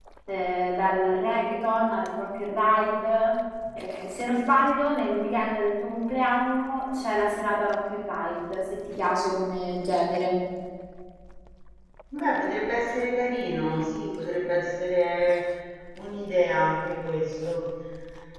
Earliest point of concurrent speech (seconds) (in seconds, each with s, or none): none